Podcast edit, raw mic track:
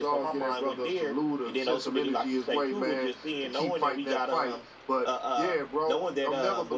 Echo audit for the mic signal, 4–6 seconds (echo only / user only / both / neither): echo only